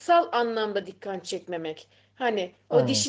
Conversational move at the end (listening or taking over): listening